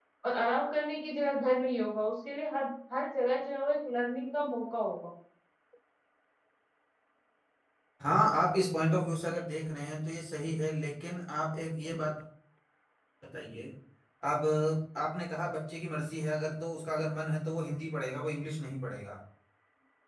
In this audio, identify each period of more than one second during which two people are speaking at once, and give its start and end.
none

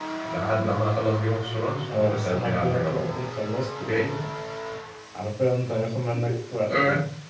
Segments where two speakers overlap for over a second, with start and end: 1.9-3.1

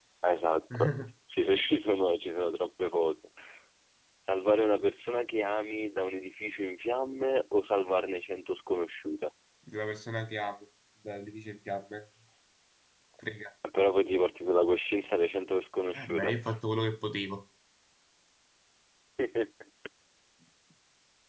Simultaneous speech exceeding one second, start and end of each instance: none

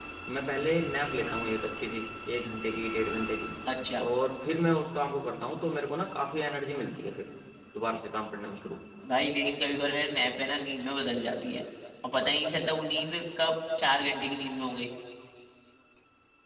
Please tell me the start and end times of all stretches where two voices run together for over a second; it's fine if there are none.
none

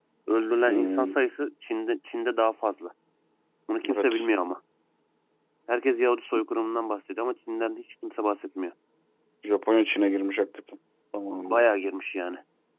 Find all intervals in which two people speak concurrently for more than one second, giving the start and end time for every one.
none

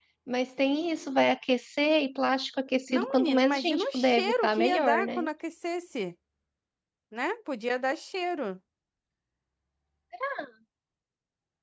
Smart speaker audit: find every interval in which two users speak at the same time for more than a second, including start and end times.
2.9-5.2

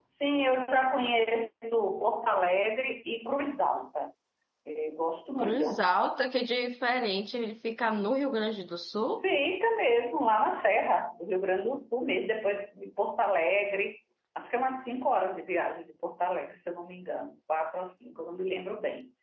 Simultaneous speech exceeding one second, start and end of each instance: none

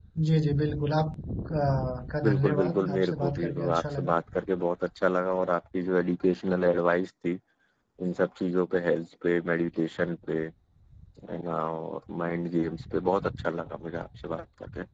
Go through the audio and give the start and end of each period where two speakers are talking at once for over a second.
2.2-4.1

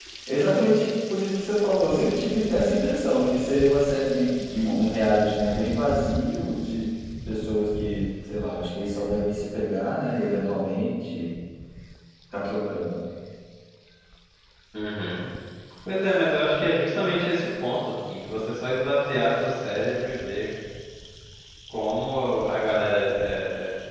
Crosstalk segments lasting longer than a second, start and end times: none

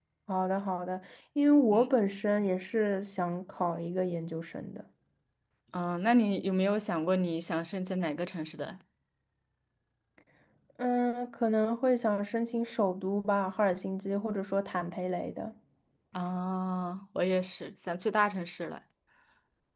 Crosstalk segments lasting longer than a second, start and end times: none

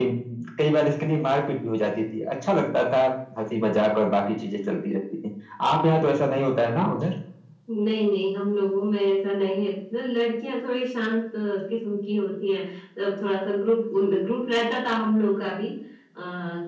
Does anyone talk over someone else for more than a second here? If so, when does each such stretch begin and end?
none

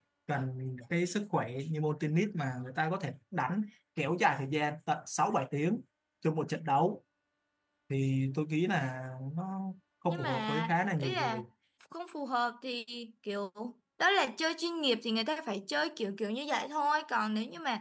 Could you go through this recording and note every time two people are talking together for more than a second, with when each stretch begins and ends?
10.1-11.4

